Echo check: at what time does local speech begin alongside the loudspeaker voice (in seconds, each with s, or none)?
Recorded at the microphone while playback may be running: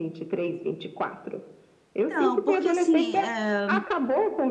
2.0 s